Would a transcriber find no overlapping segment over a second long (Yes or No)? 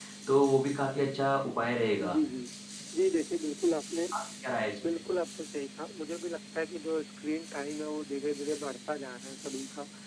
Yes